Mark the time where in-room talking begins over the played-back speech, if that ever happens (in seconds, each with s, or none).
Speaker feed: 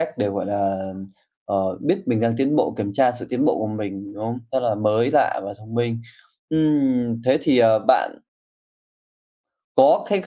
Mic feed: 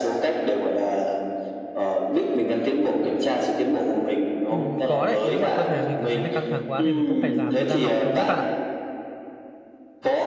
4.5 s